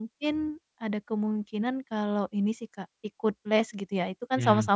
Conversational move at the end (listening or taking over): listening